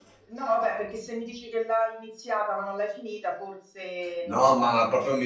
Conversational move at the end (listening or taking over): taking over